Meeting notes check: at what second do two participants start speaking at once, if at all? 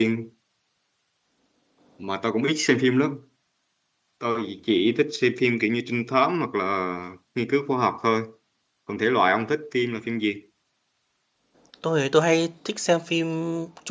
none

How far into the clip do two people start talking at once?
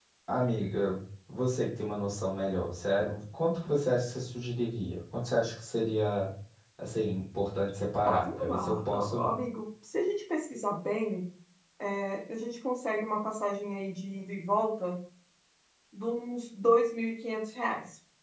8.0 s

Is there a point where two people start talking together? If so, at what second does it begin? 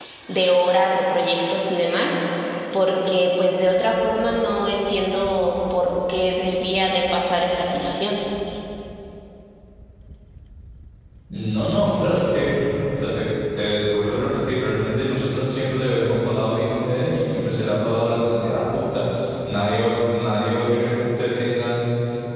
none

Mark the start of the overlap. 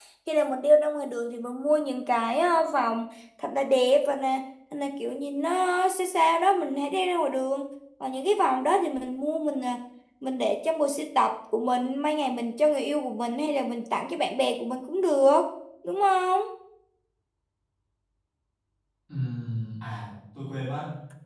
none

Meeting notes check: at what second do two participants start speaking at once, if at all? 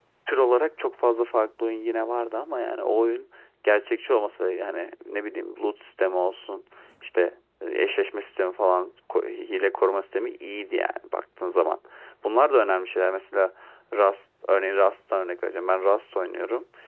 none

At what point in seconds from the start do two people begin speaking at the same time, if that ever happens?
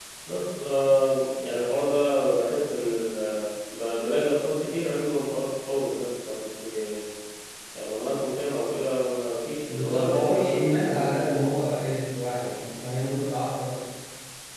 9.7 s

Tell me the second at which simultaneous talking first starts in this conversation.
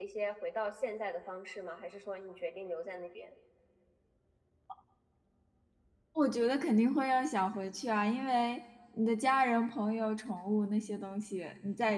none

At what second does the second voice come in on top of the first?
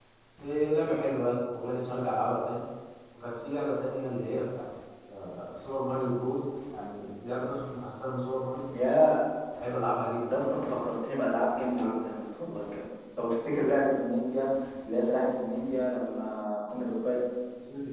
none

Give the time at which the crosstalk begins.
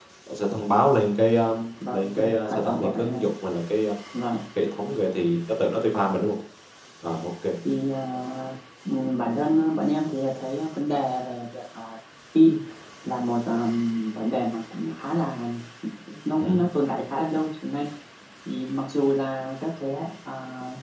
1.9 s

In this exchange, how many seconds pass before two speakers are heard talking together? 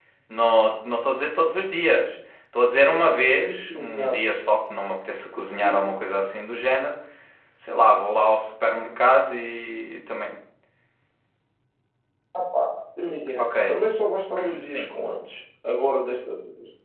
3.1 s

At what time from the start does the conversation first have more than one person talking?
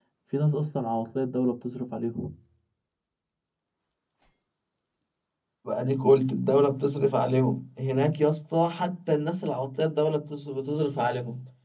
none

